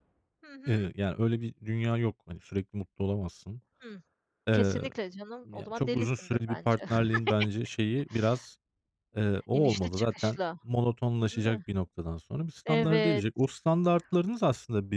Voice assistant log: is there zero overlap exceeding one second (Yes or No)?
No